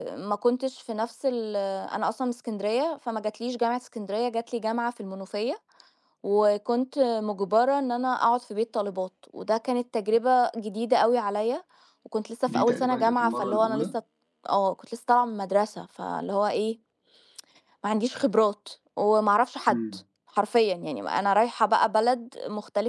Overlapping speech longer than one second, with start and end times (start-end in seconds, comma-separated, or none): 12.5-13.8